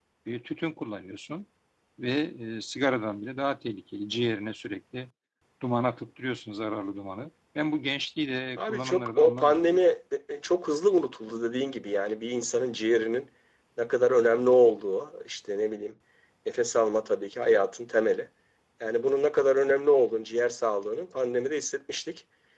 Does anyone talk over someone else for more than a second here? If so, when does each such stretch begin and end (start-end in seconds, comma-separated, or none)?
8.6-9.8